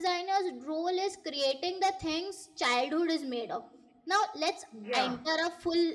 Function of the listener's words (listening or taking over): listening